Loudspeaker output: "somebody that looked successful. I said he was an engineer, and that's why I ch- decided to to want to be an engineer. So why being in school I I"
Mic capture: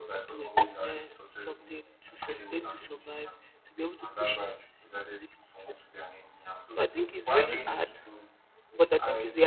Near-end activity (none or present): present